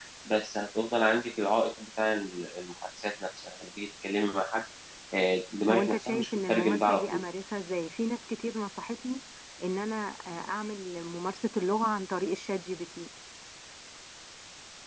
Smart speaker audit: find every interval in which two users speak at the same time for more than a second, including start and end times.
5.7-7.2

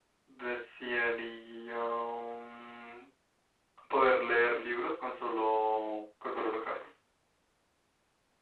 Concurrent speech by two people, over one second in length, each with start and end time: none

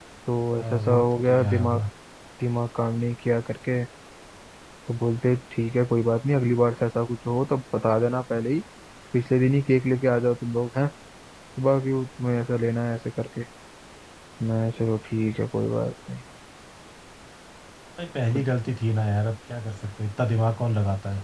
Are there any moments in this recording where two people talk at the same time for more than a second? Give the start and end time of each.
0.6-1.8

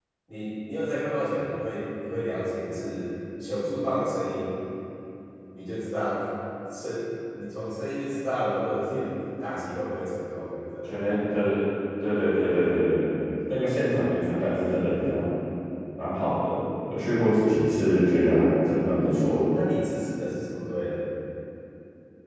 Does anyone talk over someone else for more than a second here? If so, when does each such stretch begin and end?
none

